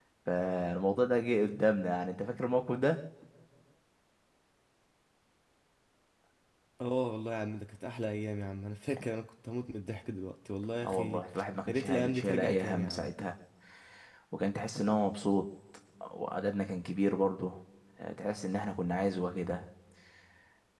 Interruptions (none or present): present